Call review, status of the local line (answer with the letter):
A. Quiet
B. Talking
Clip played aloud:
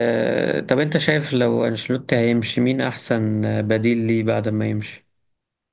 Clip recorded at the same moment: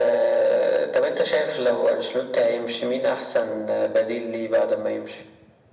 A